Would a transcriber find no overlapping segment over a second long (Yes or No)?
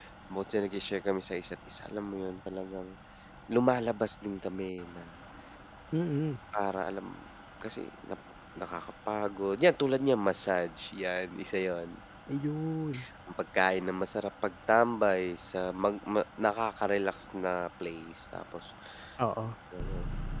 Yes